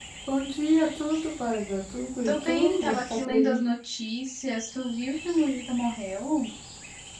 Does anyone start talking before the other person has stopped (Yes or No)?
Yes